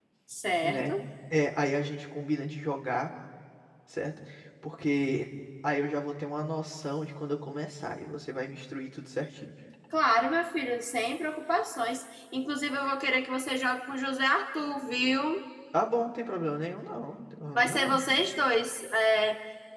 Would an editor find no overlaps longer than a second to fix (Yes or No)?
Yes